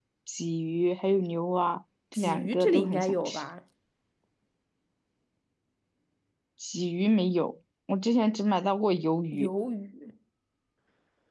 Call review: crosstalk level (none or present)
present